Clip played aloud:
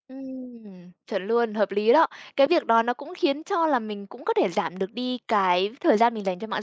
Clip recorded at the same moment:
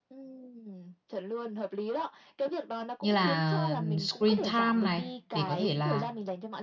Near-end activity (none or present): present